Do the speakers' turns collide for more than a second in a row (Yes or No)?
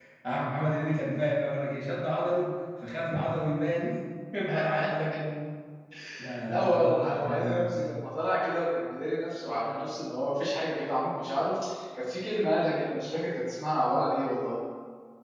Yes